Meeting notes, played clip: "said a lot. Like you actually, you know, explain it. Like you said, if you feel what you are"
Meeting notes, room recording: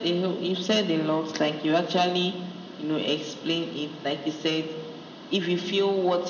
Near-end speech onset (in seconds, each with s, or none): none